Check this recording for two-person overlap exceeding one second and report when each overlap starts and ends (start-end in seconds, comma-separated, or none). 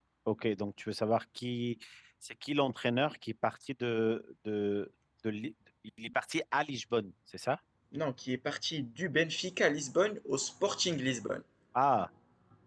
none